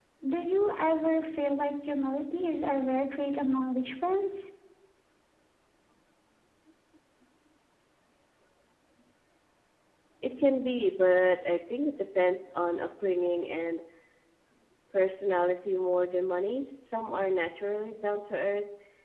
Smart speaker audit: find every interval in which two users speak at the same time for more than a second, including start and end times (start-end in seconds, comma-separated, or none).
none